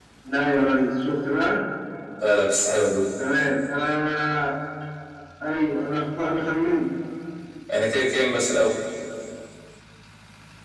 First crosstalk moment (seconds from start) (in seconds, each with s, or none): none